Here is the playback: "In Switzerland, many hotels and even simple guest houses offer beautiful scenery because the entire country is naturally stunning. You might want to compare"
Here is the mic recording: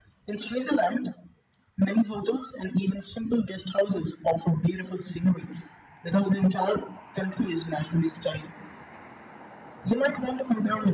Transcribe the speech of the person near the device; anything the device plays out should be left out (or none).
none